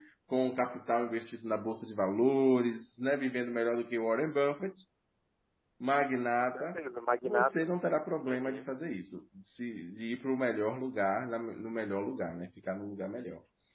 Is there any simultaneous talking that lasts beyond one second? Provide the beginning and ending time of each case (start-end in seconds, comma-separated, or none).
none